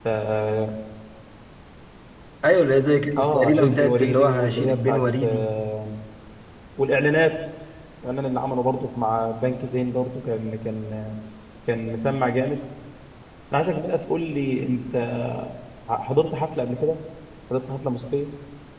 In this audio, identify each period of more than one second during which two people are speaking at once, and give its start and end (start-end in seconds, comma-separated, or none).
3.2-5.5